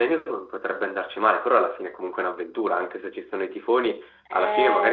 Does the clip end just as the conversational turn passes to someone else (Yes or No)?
Yes